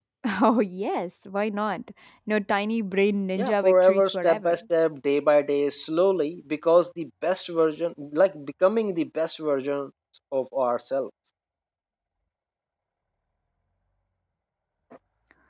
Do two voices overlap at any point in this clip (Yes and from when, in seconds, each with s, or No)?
Yes, from 3.4 s